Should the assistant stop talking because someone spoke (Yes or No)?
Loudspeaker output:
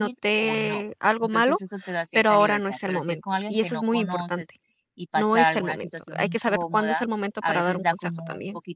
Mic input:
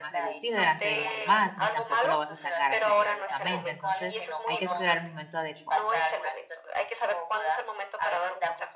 Yes